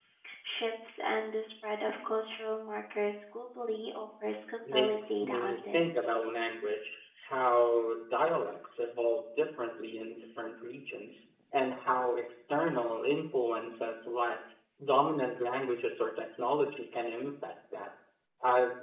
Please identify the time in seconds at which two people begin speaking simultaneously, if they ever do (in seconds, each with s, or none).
4.7 s